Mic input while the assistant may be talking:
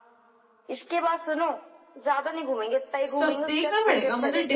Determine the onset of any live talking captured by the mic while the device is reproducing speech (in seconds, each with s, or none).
3.1 s